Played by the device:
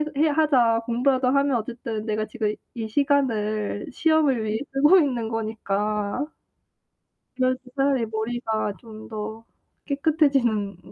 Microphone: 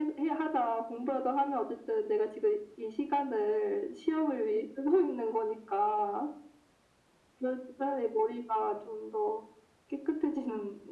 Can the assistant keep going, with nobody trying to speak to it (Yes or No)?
Yes